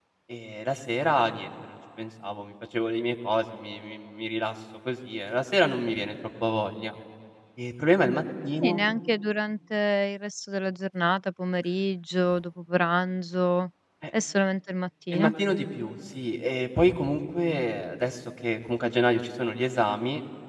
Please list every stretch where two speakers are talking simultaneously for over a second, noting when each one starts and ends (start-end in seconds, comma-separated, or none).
none